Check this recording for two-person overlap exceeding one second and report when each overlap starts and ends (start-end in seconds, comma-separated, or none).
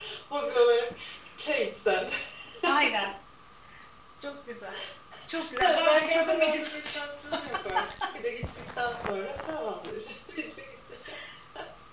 5.6-7.0